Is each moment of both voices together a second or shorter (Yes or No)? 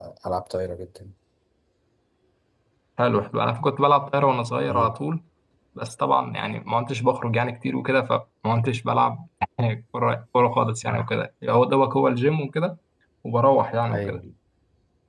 Yes